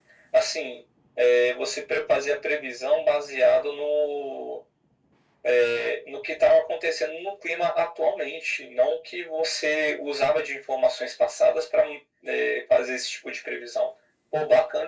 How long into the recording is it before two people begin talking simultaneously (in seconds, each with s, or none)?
none